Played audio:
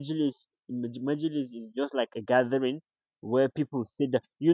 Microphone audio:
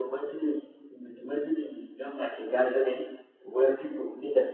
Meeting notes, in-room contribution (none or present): none